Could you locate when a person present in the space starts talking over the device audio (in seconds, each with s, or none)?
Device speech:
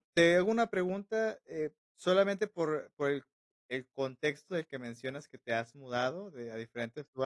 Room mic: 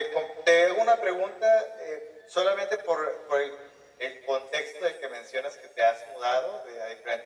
none